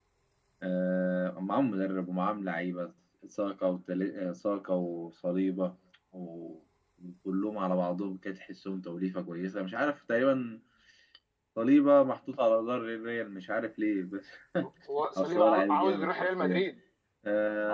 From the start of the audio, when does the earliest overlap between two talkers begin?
15 s

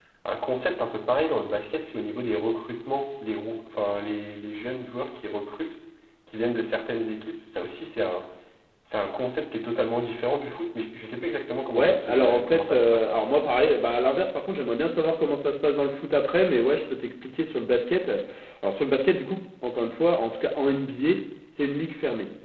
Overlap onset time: 12 s

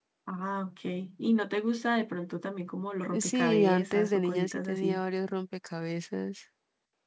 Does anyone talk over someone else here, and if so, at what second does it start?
3 s

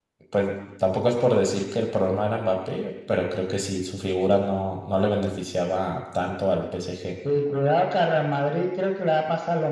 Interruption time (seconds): none

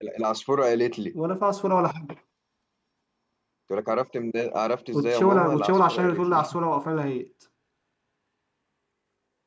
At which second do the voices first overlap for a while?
5 s

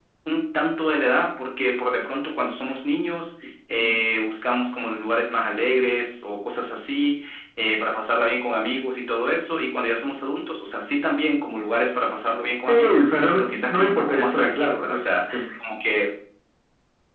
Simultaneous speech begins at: 13 s

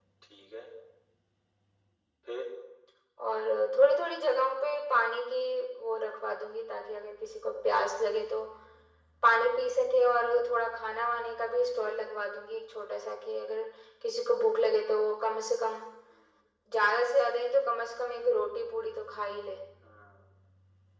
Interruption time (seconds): none

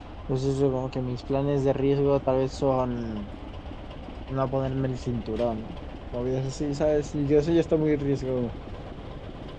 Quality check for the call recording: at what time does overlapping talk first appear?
none

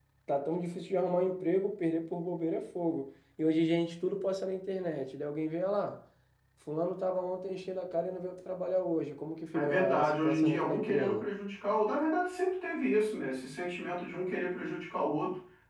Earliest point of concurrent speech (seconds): 10 s

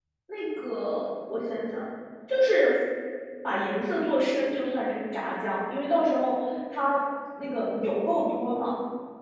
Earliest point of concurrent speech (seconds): none

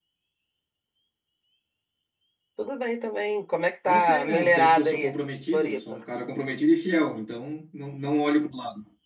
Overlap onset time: 4 s

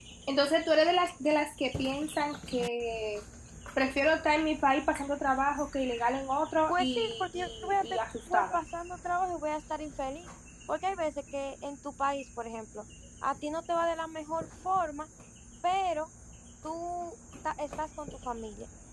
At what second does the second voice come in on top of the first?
7 s

